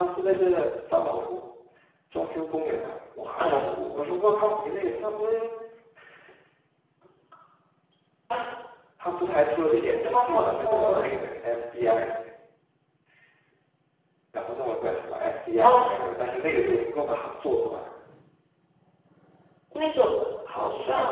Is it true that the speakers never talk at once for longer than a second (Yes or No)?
No